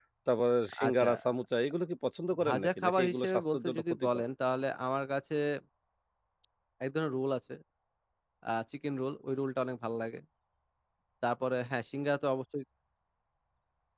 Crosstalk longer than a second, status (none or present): present